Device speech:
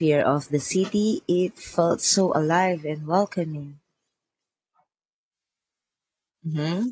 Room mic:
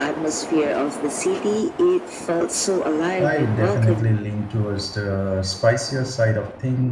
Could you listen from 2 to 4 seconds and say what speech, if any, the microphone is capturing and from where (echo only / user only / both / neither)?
both